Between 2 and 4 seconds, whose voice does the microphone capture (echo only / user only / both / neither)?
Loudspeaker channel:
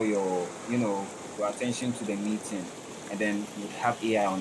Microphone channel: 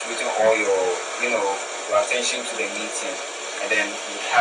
echo only